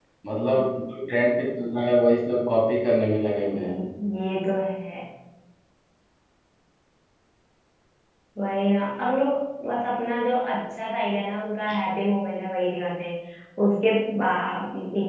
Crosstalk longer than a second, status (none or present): none